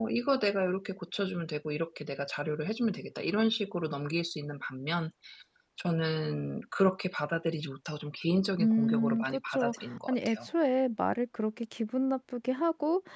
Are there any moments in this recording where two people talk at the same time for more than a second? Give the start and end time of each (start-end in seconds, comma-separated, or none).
8.6-10.5